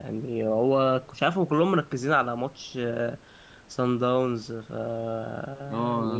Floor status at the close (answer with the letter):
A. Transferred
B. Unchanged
A